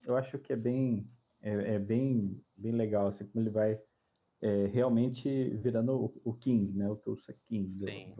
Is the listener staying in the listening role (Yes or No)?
No